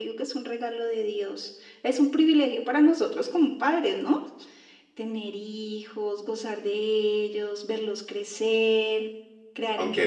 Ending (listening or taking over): taking over